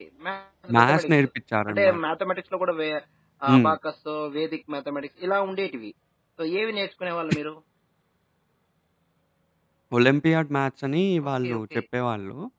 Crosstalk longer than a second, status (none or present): none